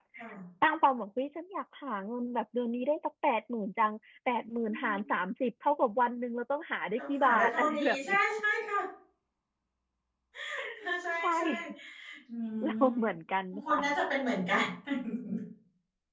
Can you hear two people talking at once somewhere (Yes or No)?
Yes